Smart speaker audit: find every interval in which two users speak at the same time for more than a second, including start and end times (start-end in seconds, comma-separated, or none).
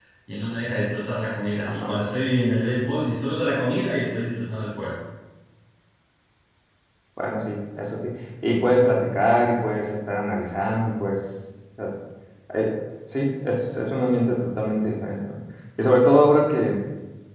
none